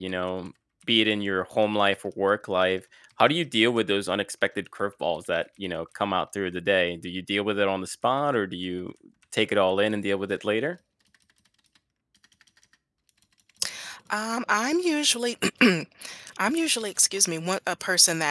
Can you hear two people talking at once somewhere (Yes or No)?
No